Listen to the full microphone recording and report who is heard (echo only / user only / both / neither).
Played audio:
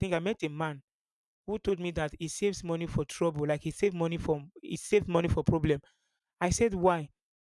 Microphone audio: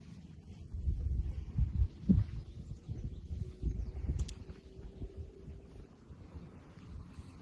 neither